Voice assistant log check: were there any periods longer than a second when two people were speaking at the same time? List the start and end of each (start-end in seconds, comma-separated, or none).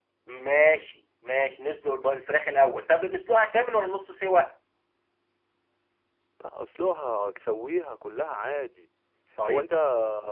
none